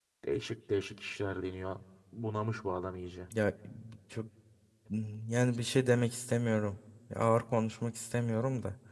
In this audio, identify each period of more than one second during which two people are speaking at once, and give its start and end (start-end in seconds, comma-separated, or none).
none